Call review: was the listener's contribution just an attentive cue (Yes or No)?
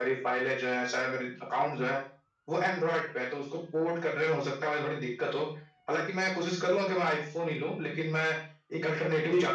No